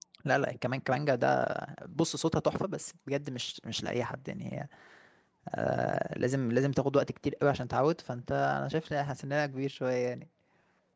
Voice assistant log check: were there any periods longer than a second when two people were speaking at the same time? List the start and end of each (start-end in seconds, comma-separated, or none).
none